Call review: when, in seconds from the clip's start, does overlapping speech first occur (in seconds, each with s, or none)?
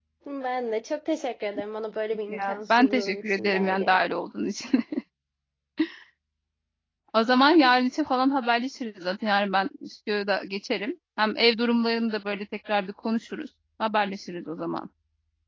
2.3 s